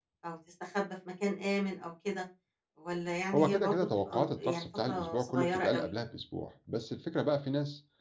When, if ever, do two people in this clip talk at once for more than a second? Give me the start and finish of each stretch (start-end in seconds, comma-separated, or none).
3.3-5.9